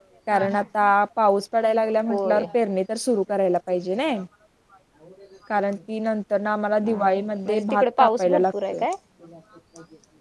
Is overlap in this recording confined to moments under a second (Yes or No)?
No